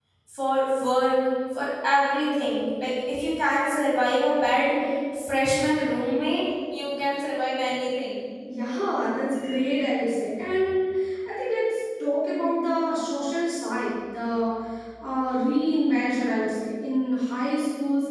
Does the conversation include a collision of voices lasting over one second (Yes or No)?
No